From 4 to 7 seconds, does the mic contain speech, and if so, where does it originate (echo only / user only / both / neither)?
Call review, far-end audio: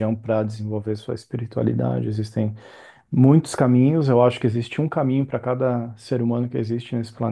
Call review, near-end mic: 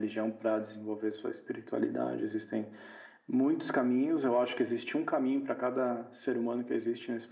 echo only